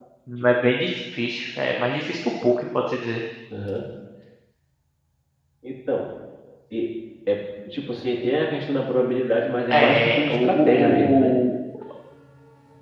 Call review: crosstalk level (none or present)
present